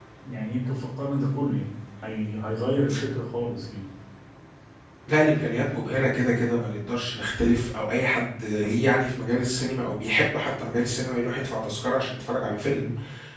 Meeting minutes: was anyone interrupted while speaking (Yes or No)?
No